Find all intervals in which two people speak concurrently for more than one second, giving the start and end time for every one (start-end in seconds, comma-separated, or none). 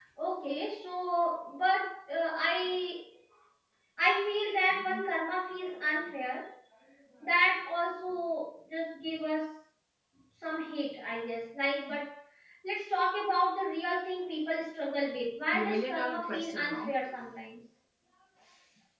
15.5-16.9